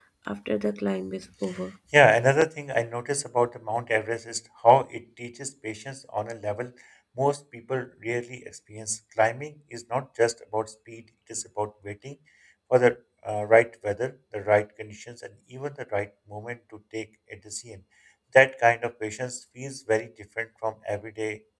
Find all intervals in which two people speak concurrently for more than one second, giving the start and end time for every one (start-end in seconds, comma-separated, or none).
none